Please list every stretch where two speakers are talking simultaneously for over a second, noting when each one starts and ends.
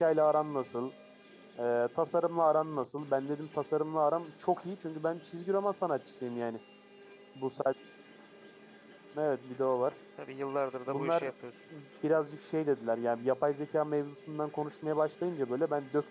none

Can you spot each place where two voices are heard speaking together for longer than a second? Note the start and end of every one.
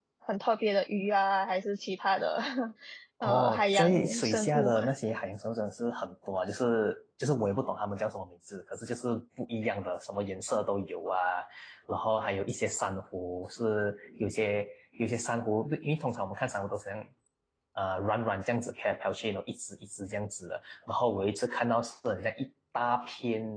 3.2-4.8

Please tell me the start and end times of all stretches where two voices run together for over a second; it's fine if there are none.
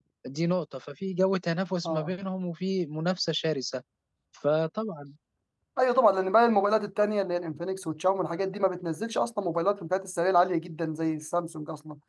none

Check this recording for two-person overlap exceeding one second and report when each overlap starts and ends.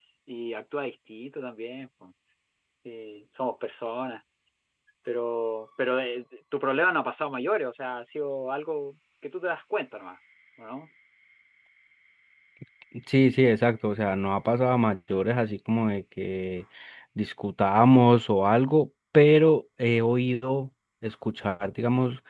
none

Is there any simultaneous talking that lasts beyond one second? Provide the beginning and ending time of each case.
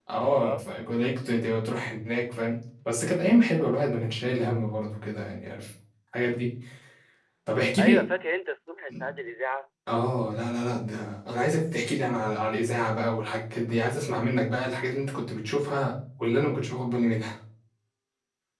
none

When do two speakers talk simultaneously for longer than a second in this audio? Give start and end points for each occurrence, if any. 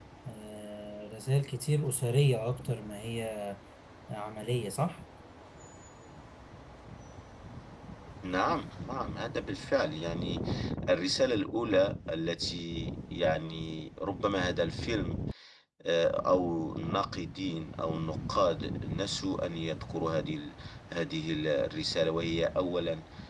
none

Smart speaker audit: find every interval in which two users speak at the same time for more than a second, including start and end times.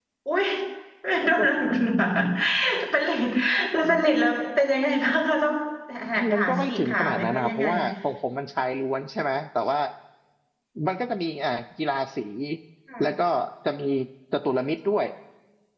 6.3-7.6

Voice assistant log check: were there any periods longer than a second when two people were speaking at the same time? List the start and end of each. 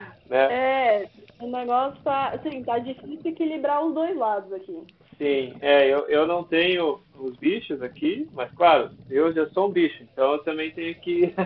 none

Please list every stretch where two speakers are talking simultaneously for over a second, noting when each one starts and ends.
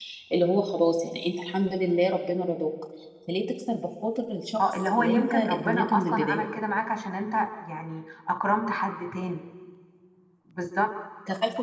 4.7-6.5

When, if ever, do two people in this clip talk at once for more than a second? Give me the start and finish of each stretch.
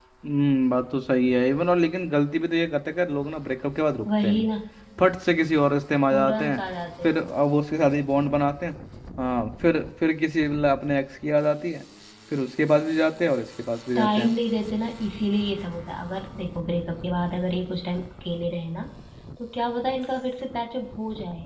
none

